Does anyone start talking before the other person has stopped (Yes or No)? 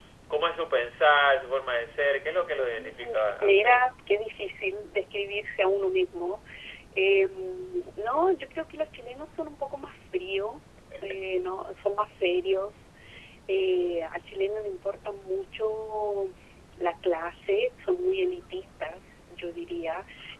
Yes